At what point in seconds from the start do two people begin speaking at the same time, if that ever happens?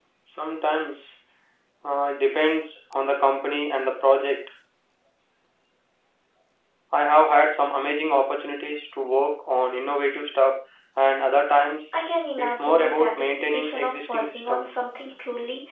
12.4 s

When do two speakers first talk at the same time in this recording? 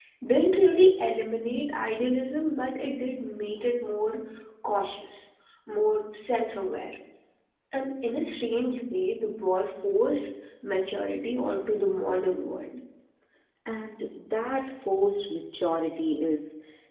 none

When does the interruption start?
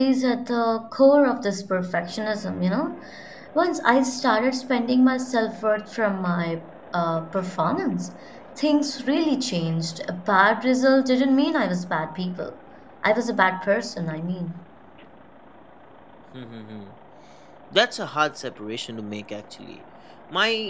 none

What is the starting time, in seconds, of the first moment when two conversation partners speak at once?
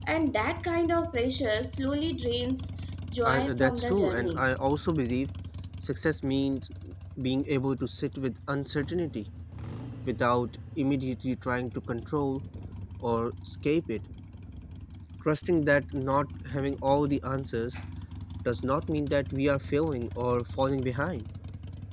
3.2 s

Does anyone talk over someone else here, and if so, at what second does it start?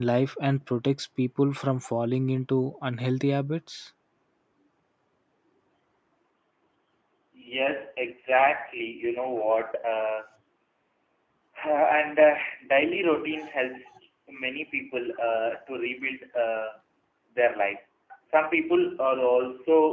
none

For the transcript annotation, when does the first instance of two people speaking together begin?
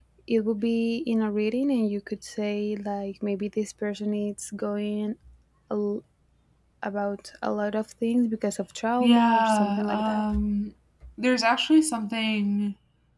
9.0 s

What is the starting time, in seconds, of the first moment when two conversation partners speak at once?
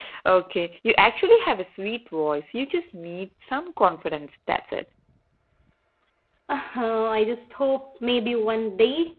none

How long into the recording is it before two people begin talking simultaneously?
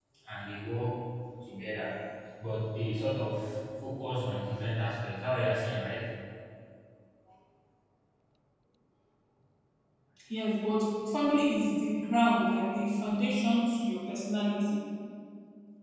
none

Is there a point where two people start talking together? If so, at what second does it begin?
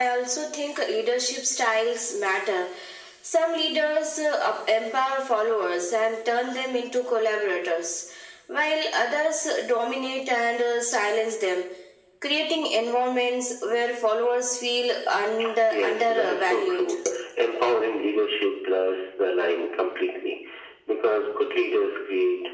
15.7 s

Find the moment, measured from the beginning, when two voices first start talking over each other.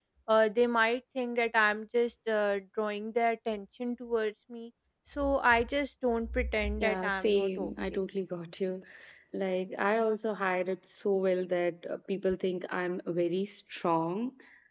6.8 s

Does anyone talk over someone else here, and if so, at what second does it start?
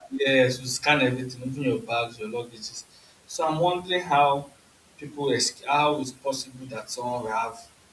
none

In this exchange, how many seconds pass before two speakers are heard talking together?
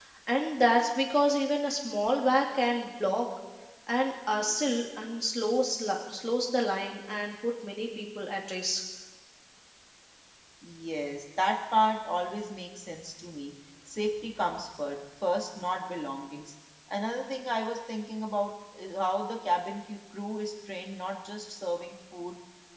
none

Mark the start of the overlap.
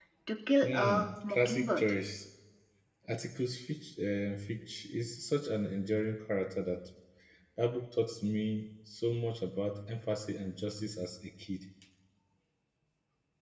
0.6 s

